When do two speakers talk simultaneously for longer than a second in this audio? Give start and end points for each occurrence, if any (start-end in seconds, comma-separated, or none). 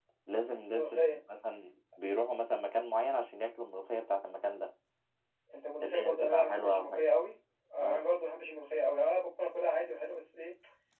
5.8-7.1